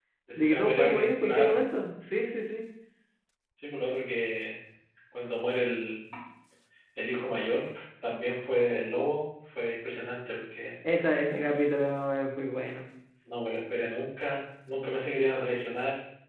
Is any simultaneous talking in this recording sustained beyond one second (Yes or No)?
Yes